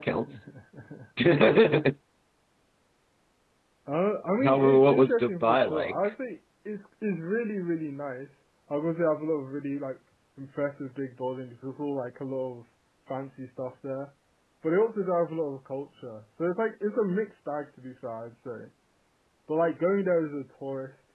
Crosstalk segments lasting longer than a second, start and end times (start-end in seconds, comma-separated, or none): 4.4-6.1